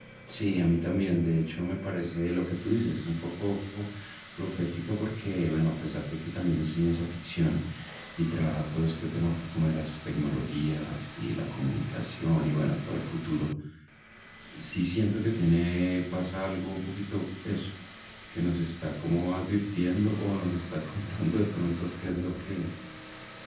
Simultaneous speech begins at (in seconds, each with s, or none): none